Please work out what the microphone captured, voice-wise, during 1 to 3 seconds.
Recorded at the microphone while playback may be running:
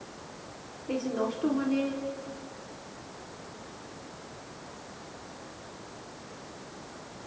user only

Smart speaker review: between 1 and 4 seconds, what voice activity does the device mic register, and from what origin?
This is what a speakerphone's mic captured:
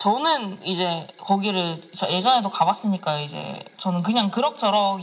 echo only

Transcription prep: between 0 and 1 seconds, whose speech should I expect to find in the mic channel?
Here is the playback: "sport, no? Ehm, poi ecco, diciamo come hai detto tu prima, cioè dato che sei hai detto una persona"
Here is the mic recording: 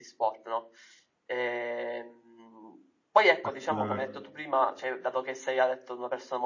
echo only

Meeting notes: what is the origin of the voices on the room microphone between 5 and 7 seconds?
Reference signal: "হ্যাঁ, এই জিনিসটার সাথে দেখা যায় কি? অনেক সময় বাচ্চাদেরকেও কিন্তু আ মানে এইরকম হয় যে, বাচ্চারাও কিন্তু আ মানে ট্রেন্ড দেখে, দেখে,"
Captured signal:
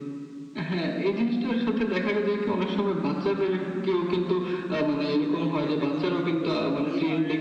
both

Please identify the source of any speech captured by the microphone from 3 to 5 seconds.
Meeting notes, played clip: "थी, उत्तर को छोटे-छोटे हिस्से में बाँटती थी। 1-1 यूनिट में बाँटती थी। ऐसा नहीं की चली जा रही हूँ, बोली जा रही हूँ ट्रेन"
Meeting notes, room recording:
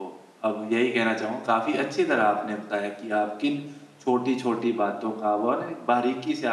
user only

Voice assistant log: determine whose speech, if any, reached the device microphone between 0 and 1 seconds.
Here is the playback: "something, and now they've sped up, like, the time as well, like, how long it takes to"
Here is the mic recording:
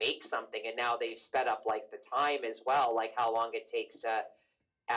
echo only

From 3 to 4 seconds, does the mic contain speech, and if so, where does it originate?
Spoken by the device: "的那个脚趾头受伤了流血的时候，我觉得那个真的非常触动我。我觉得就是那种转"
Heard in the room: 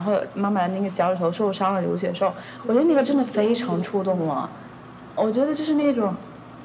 both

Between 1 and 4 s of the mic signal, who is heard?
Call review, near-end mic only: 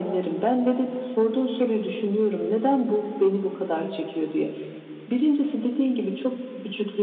echo only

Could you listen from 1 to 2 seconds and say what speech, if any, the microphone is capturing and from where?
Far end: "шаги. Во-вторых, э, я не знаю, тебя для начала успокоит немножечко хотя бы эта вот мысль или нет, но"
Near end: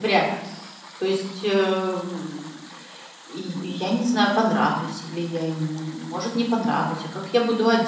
user only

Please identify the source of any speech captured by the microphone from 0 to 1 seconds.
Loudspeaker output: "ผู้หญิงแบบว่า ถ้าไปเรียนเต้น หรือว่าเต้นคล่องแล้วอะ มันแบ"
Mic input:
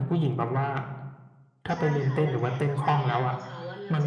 echo only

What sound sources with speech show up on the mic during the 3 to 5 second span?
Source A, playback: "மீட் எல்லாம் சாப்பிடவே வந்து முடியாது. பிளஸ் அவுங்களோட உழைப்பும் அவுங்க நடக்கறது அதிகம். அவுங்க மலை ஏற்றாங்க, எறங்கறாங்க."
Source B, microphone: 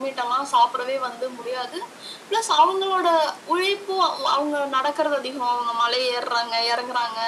echo only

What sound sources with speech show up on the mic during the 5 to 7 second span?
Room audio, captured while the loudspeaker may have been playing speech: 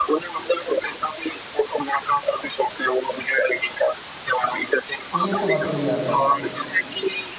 both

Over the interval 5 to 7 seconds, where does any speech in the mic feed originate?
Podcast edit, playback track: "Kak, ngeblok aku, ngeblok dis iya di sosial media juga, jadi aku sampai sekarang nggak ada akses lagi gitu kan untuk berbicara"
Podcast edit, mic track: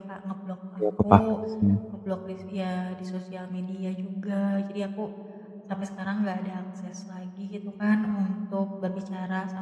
echo only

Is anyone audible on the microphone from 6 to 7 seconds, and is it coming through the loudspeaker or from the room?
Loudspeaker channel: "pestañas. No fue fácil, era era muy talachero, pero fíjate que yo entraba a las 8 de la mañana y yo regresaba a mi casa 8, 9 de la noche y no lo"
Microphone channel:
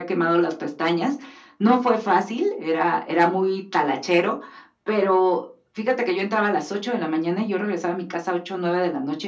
echo only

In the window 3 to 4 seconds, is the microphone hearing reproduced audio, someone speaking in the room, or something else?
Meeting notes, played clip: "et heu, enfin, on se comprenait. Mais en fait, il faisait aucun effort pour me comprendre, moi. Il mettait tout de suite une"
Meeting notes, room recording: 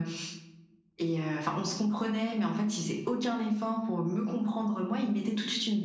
echo only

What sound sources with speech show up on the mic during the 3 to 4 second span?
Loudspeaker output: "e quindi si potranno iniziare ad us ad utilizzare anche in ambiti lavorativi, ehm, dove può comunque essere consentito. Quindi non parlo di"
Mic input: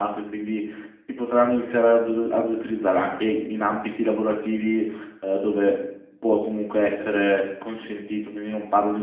echo only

